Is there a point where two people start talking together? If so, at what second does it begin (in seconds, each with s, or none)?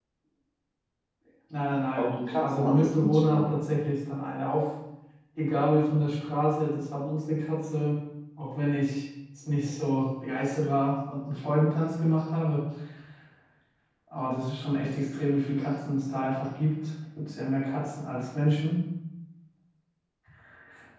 2.0 s